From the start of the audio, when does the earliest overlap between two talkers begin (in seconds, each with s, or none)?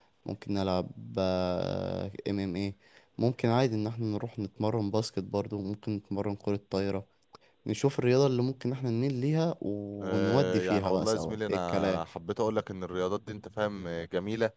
10.0 s